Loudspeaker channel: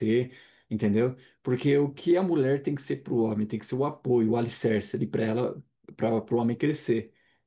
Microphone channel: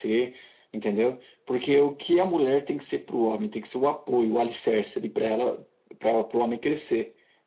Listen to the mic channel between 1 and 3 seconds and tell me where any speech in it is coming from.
echo only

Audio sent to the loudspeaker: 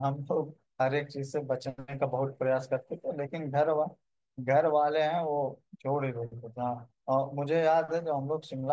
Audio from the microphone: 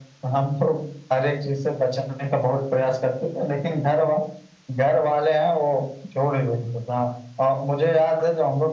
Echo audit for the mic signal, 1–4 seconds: echo only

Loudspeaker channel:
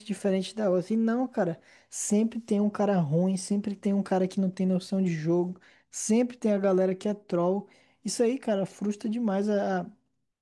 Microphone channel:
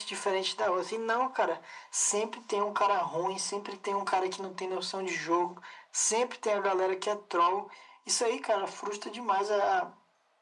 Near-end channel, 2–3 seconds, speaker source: echo only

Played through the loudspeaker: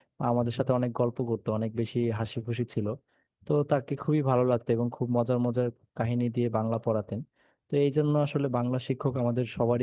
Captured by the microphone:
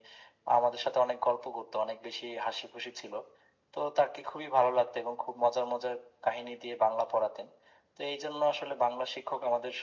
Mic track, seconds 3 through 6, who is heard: echo only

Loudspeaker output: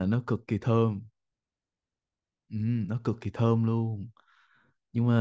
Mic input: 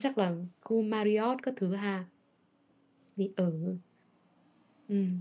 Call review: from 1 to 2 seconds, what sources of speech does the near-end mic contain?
user only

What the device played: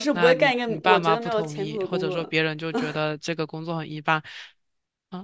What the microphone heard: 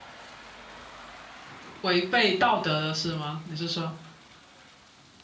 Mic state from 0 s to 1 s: neither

